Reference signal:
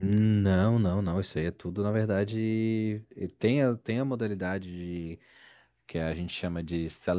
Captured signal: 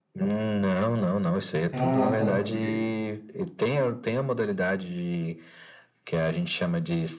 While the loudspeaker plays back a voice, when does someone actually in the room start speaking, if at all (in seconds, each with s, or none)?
1.7 s